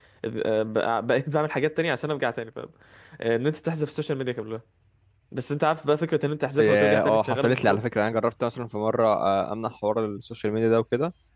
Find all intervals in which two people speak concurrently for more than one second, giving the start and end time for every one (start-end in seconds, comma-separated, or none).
6.6-7.8